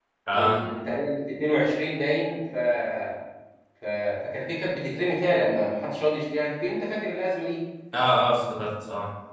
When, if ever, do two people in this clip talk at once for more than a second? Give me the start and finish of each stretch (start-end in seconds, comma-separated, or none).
none